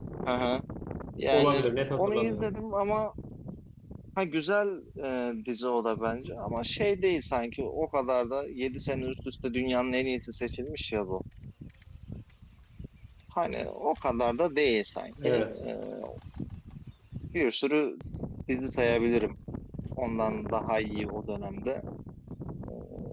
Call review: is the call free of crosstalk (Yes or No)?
No